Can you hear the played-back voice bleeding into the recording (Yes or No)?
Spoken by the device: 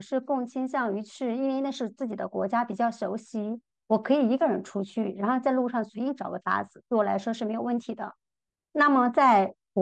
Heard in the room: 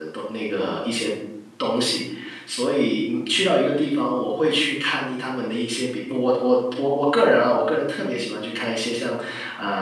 No